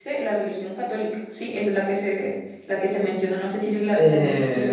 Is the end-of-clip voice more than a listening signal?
Yes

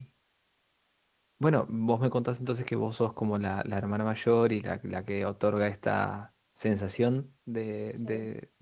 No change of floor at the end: Yes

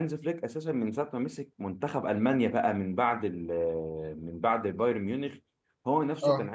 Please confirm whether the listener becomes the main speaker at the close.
No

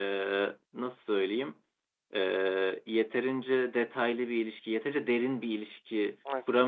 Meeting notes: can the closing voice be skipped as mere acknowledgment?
No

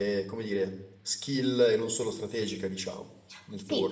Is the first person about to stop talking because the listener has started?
Yes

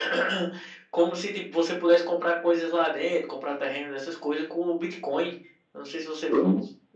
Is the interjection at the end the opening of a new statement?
No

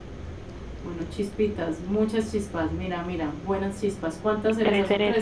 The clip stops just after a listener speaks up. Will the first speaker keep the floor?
No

